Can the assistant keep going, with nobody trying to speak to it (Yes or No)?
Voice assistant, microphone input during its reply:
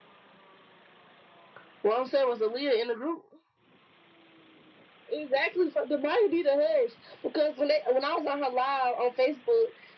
Yes